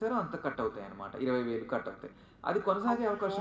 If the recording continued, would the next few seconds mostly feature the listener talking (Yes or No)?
No